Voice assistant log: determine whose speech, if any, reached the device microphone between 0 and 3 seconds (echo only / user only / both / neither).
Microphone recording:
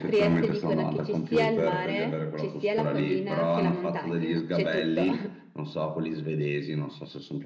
echo only